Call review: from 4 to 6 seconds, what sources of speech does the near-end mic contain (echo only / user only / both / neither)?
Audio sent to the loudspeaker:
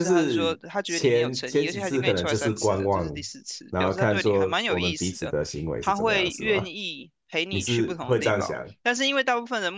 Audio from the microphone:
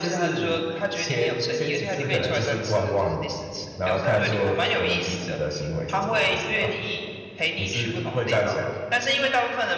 echo only